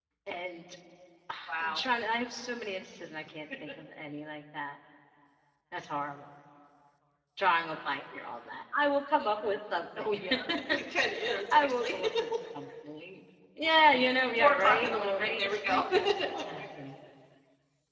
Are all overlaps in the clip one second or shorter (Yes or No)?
No